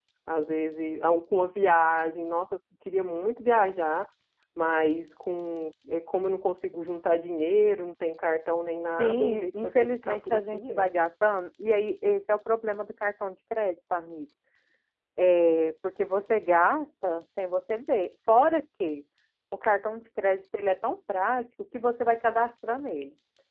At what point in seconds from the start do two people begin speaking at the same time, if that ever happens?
9.0 s

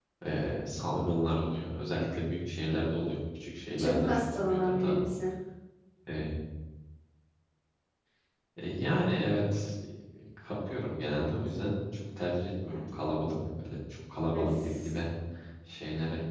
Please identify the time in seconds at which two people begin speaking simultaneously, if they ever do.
3.8 s

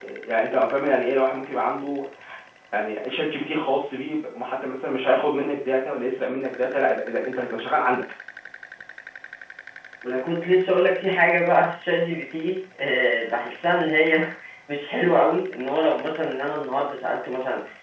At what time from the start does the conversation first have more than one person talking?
none

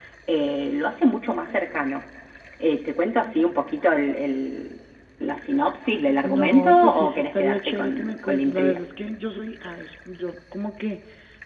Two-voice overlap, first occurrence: 6.2 s

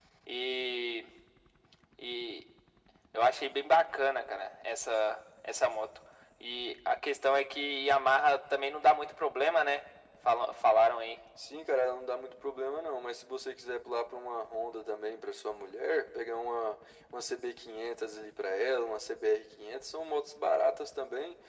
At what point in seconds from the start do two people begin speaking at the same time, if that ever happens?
none

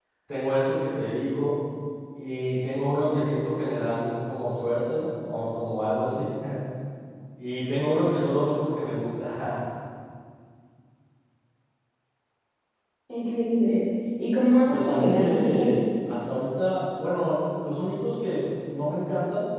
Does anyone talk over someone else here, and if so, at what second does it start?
14.7 s

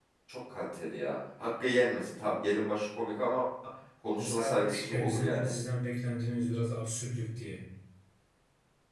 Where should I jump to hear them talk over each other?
4.2 s

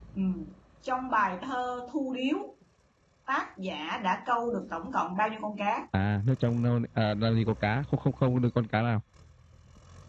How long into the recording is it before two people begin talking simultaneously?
none

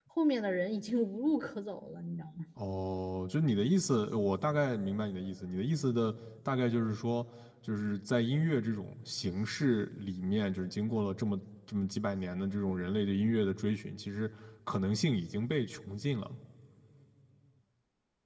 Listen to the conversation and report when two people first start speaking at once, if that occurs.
none

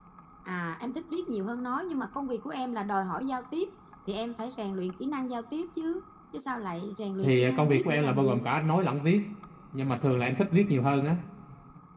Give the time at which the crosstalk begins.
7.2 s

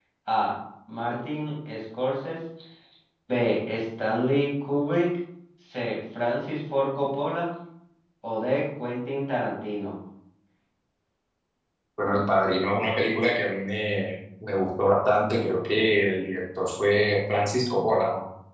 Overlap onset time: none

